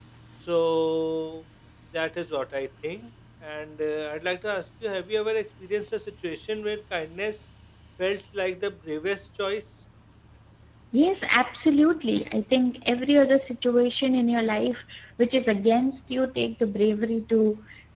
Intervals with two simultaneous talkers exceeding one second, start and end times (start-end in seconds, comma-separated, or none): none